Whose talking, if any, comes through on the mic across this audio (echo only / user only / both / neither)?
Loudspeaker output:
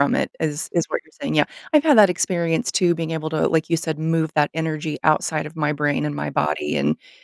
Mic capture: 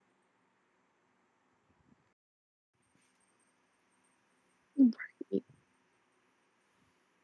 user only